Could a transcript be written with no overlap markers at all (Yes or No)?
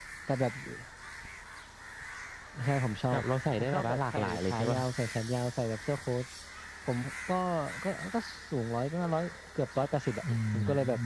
No